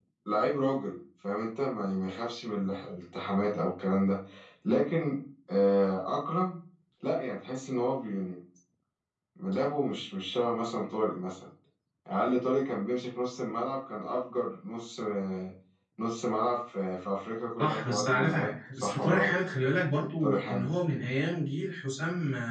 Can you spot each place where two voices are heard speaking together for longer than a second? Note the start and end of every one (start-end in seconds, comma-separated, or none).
17.6-19.3